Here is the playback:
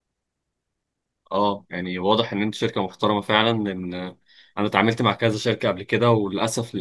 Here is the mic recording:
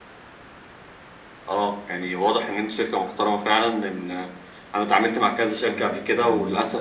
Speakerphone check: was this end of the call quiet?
No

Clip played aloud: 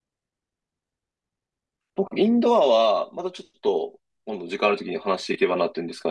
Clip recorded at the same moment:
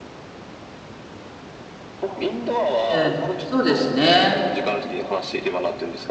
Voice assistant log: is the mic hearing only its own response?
No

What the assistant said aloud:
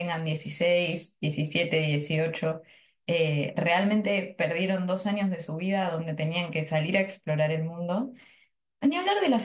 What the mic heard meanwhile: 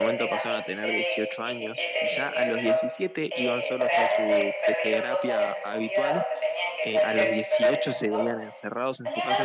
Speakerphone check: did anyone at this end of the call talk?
Yes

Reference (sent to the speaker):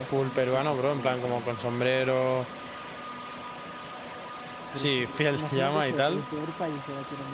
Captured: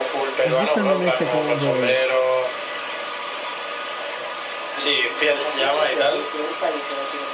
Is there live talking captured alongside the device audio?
Yes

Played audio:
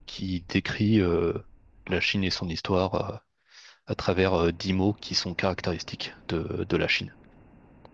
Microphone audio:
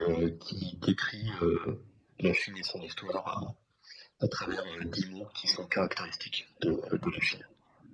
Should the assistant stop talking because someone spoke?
No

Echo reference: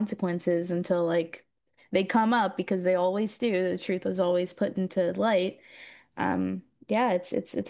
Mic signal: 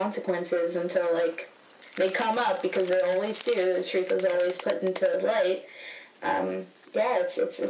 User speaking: No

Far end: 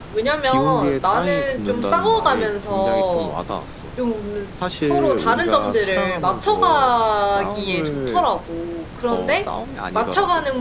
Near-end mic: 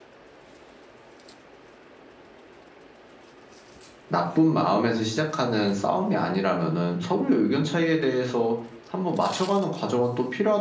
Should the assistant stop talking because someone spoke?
Yes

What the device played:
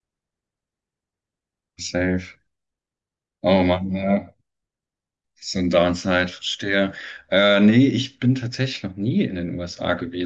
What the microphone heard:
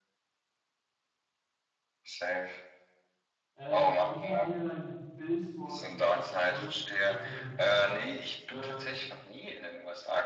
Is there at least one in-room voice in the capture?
Yes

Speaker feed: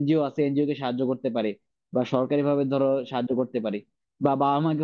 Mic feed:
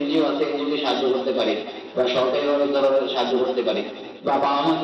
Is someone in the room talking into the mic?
No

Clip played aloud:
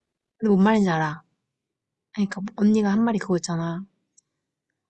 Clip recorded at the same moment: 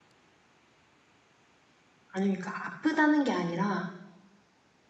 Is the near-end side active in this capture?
Yes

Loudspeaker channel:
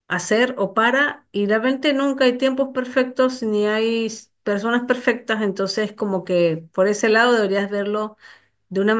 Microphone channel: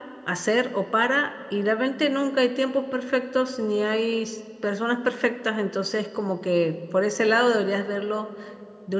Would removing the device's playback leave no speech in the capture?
Yes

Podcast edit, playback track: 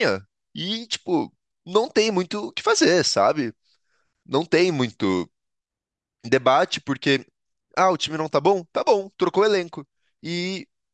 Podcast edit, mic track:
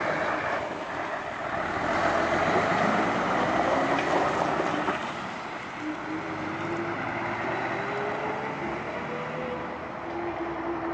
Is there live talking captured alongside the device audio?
No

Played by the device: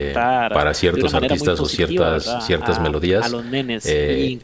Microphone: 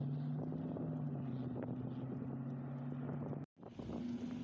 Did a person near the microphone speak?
No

